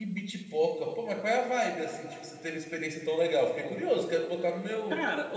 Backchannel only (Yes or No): No